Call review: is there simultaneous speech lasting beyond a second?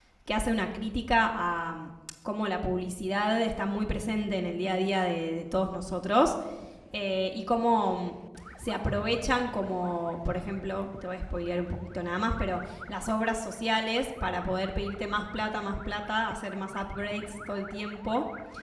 No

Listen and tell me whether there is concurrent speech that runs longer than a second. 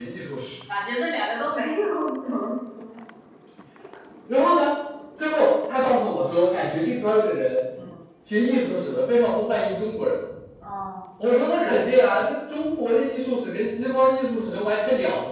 No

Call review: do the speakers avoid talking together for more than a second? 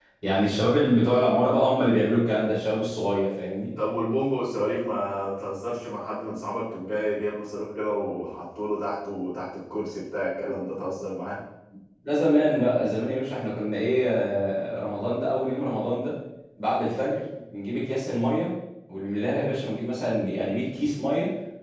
Yes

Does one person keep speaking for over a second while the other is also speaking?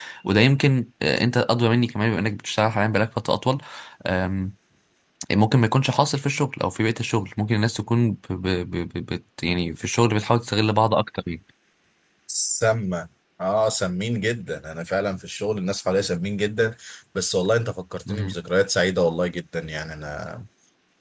No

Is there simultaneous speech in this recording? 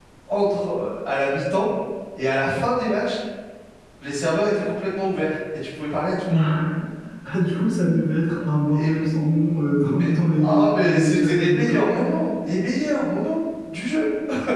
Yes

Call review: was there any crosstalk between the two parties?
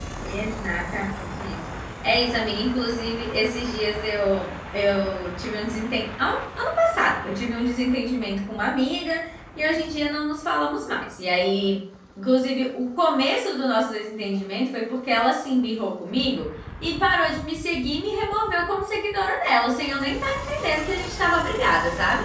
No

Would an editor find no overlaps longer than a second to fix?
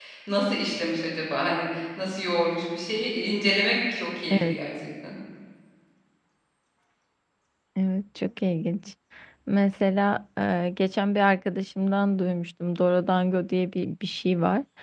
Yes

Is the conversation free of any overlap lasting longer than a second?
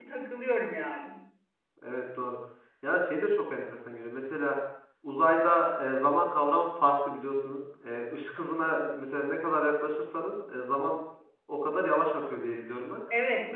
Yes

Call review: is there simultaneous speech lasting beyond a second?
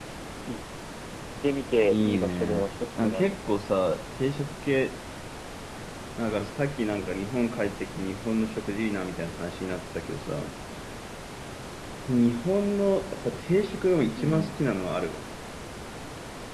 Yes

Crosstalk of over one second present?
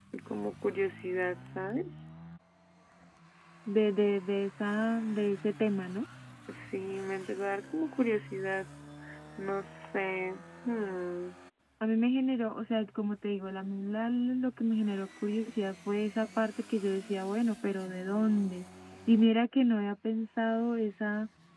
No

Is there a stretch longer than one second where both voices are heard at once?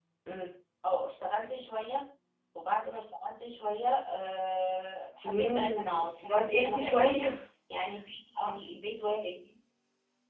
Yes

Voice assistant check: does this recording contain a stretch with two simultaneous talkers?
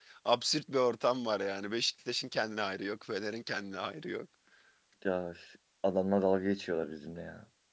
No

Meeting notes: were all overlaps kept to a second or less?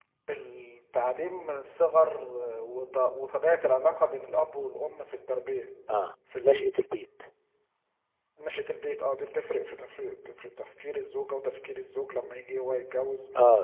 Yes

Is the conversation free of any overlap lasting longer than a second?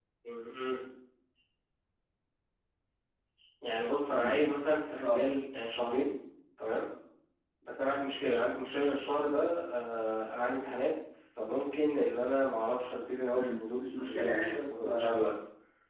No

